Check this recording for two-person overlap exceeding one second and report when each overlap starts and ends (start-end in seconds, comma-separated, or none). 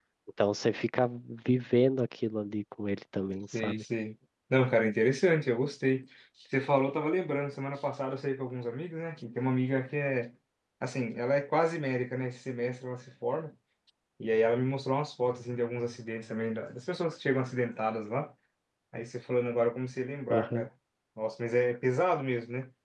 none